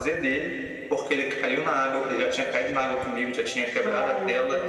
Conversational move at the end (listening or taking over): listening